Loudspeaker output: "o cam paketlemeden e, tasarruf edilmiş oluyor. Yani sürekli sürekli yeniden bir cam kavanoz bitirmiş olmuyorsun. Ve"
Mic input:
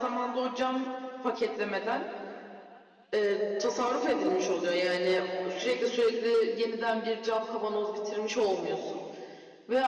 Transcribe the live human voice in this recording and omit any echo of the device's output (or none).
none